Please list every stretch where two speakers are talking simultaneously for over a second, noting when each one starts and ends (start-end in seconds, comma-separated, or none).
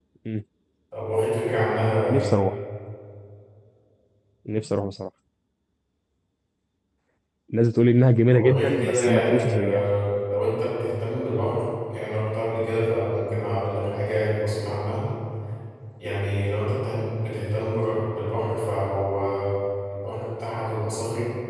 8.3-9.8